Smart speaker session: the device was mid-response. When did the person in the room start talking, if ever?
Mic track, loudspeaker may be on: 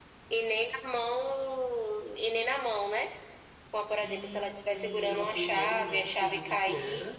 4 s

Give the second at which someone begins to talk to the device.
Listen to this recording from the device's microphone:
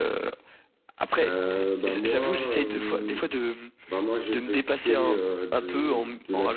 1 s

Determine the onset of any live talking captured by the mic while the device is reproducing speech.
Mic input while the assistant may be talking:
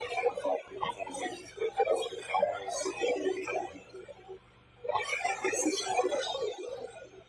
none

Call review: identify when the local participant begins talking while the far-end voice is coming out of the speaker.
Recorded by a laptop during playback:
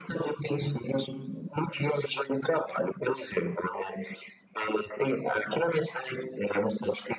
none

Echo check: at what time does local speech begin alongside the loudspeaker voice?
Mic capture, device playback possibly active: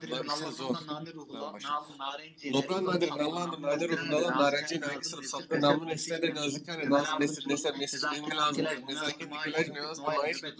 none

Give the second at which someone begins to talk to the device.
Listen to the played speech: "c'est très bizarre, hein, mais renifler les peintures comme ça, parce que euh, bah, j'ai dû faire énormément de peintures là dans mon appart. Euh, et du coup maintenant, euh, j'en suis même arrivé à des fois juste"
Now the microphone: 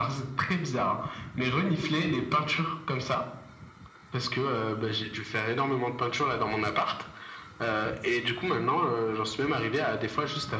none

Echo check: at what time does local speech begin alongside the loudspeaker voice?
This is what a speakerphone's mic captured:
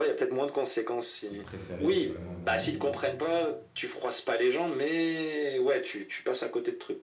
1 s

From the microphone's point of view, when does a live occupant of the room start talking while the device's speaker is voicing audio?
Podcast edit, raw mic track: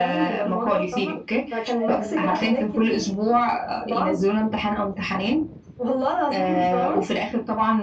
2 s

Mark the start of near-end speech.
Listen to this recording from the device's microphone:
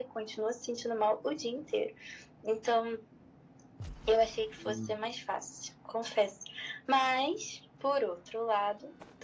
5 s

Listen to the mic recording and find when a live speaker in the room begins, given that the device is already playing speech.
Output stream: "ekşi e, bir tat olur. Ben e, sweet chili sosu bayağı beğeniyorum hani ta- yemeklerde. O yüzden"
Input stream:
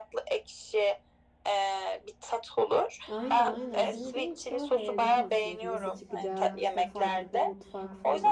3 s

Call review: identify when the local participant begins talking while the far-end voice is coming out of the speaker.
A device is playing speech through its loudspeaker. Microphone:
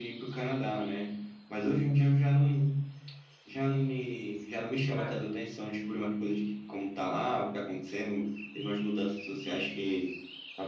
5 s

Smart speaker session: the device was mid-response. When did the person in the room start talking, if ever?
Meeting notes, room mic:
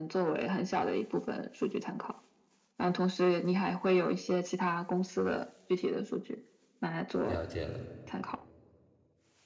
7 s

